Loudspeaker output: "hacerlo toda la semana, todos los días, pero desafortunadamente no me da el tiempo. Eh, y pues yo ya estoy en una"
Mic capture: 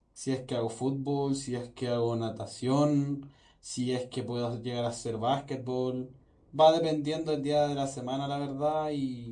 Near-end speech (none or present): present